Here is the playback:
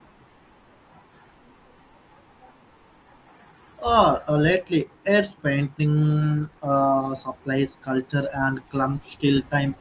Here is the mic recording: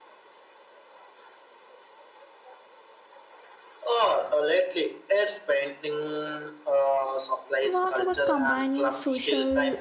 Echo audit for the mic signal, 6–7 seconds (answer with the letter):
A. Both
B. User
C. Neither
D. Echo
D